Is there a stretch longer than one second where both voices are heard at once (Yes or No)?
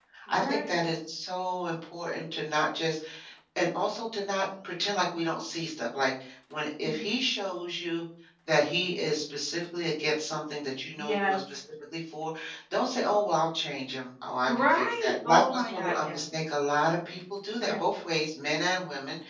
Yes